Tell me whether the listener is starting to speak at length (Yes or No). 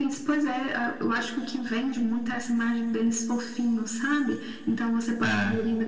No